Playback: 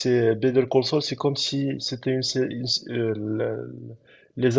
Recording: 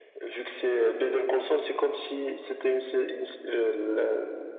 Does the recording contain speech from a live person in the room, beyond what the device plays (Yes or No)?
No